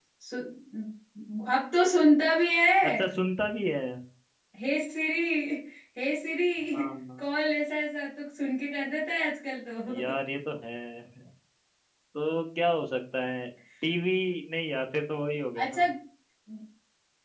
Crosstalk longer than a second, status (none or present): none